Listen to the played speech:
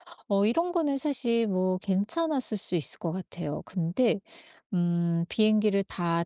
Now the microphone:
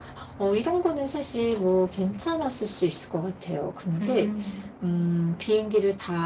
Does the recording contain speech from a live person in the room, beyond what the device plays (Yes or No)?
Yes